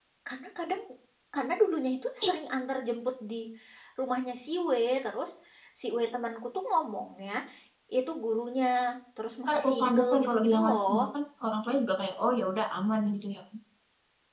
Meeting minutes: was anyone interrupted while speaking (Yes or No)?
Yes